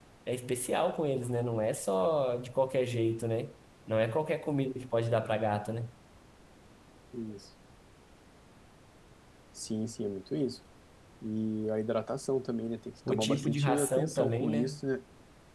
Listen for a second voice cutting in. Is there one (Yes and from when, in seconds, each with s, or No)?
Yes, from 13.1 s